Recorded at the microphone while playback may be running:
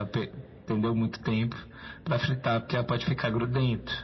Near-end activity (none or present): none